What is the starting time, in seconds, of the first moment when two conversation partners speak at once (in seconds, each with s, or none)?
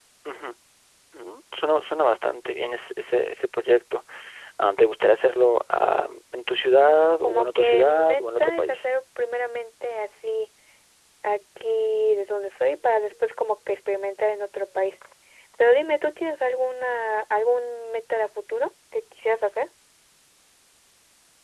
7.2 s